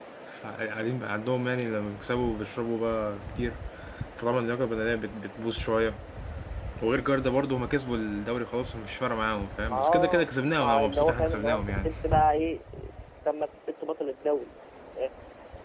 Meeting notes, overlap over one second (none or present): present